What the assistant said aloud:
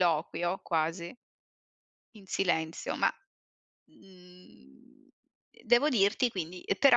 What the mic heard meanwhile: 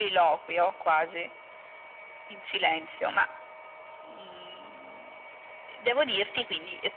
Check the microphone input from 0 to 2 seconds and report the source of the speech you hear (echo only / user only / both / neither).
echo only